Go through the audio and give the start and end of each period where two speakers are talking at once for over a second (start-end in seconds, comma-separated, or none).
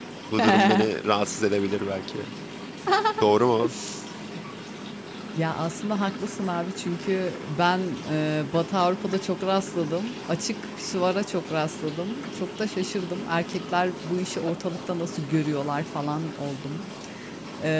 none